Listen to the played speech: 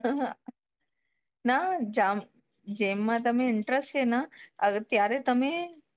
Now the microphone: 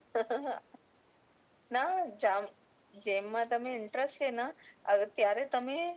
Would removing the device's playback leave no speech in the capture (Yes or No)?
Yes